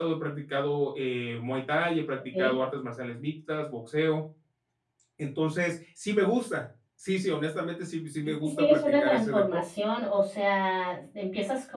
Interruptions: present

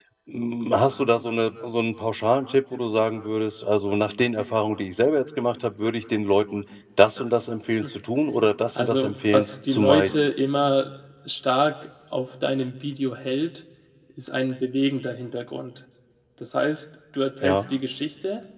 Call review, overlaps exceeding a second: present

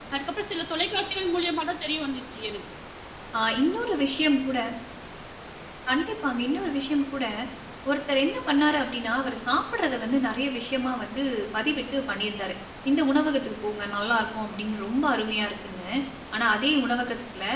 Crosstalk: none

